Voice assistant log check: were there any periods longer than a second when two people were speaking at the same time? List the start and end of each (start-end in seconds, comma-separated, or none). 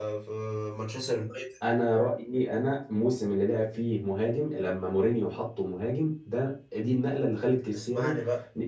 none